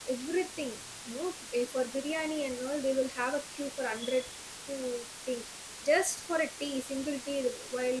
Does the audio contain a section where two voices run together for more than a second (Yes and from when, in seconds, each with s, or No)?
No